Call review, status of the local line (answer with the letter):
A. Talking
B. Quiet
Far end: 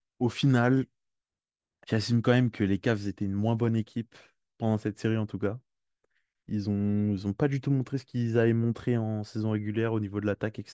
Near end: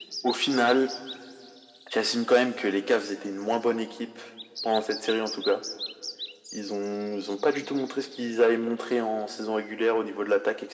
B